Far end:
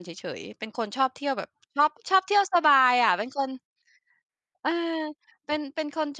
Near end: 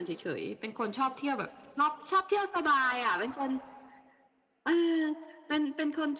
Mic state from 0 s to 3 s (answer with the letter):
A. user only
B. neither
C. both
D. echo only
D